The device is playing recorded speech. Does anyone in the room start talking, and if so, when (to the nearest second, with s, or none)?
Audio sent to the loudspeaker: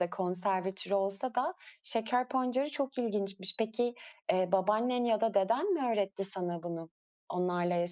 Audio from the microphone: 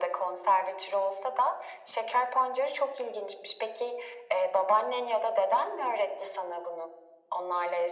none